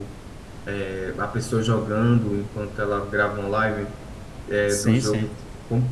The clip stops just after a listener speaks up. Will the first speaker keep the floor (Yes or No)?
Yes